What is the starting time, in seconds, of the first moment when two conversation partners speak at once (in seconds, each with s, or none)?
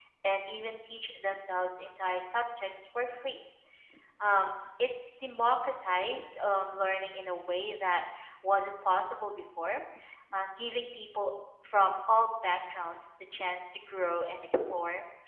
none